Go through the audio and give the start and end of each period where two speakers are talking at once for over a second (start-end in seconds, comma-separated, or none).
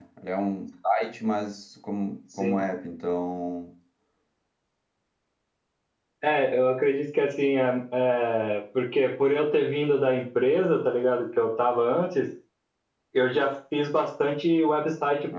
none